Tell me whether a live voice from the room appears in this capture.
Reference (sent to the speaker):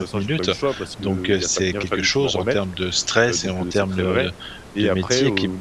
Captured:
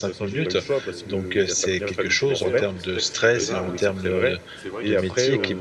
Yes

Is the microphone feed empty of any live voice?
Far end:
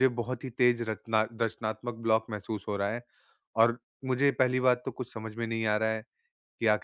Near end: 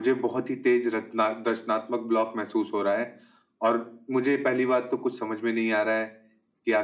Yes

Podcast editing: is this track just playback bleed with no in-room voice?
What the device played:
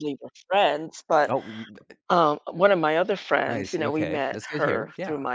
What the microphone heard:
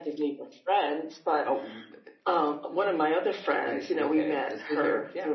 Yes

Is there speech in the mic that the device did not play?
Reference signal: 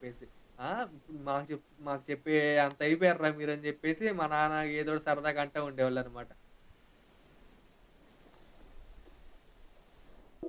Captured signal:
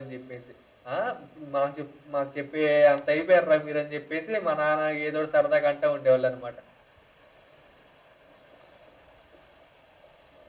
No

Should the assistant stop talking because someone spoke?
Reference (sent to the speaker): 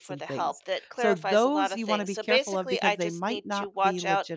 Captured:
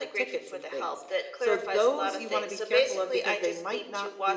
No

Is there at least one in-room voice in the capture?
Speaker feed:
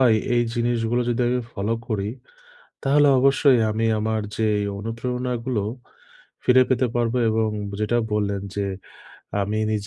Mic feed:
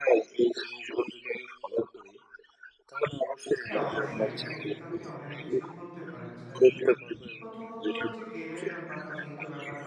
Yes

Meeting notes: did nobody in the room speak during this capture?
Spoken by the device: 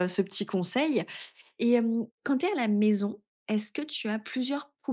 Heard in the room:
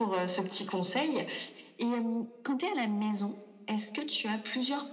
Yes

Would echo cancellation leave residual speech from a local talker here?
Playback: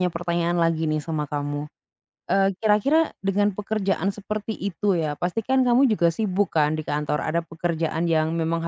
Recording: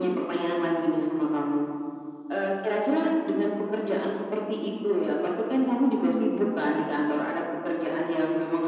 No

